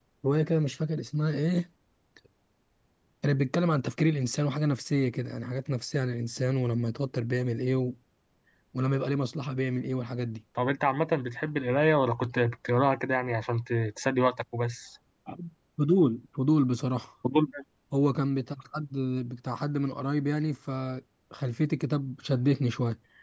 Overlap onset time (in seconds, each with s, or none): none